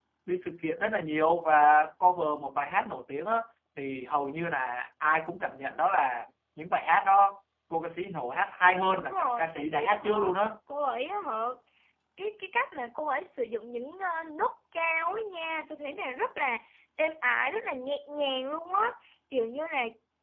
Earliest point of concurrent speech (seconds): 8.9 s

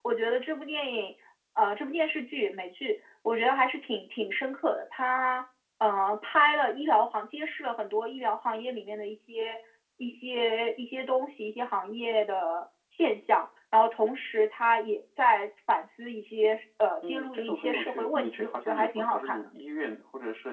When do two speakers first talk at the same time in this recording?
17.0 s

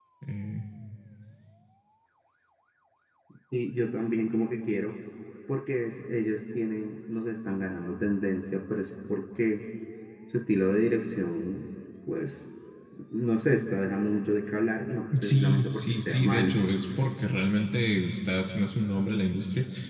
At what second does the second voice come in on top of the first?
15.1 s

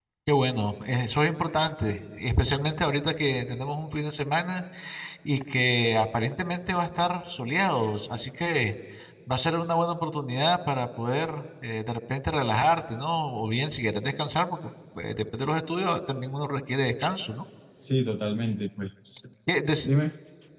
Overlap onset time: none

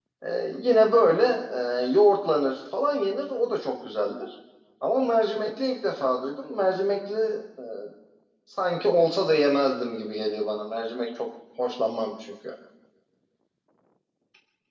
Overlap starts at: none

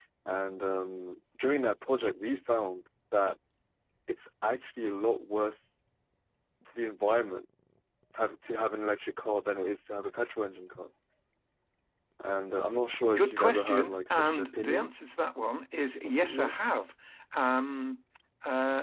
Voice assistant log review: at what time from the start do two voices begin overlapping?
13.2 s

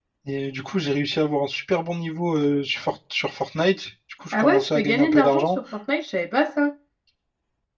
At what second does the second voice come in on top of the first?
4.3 s

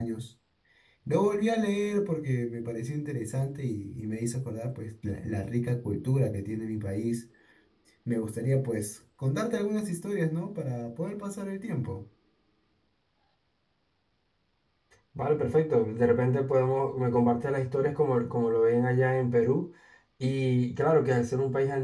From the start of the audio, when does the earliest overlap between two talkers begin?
none

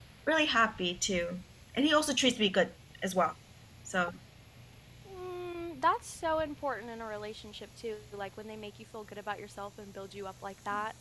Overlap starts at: none

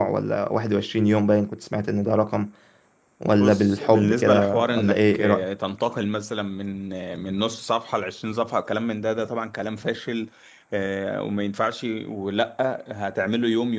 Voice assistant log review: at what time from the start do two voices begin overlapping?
3.4 s

